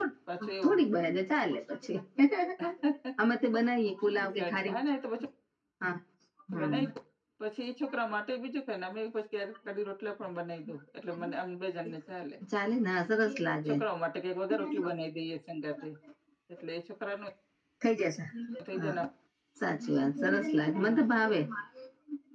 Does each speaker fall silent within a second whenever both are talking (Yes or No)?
Yes